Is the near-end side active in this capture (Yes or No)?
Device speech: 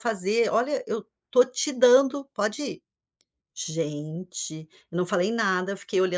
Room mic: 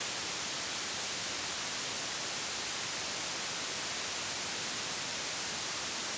No